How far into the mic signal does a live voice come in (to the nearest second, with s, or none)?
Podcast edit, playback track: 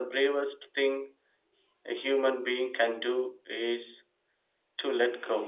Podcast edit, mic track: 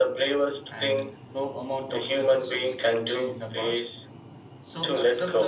1 s